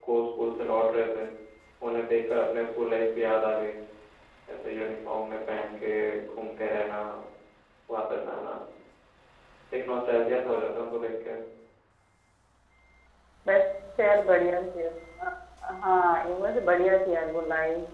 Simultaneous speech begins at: none

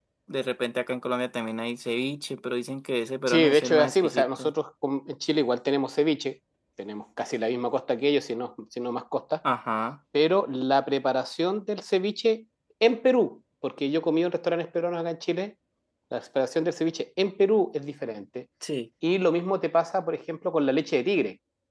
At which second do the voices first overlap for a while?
3 s

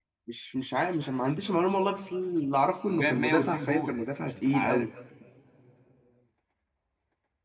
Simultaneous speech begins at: 3 s

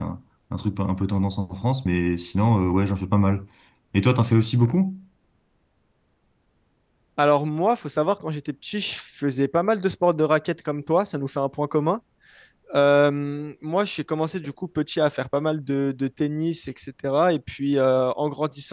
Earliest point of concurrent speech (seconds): none

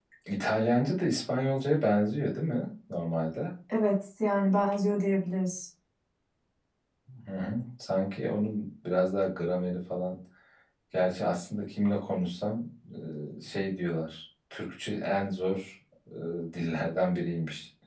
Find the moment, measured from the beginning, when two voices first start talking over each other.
none

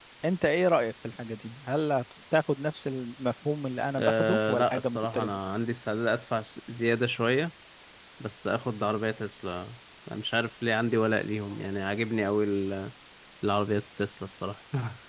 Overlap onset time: 4 s

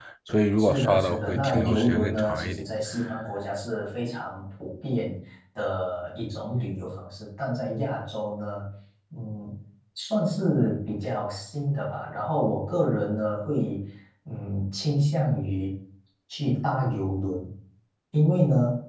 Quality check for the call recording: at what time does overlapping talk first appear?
1 s

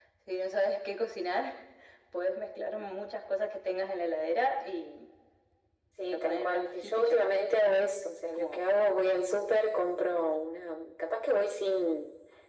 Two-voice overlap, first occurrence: 6 s

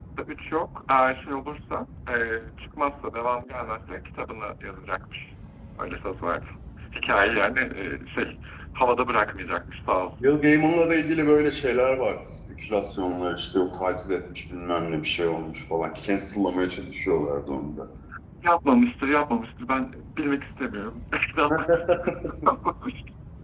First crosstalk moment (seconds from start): none

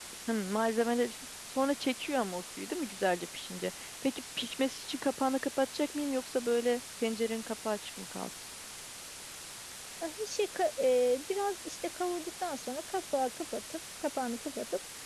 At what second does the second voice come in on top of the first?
none

